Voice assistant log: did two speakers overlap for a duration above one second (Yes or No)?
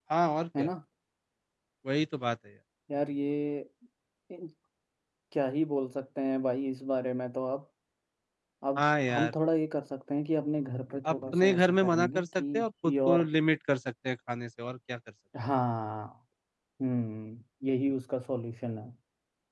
Yes